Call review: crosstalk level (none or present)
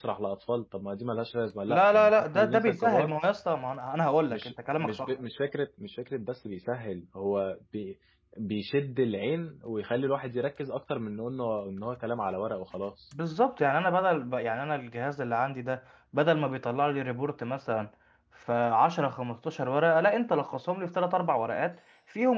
present